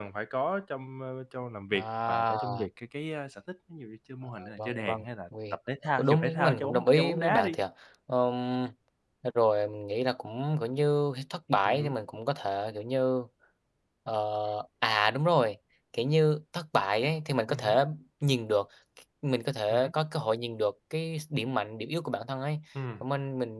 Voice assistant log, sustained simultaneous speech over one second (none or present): present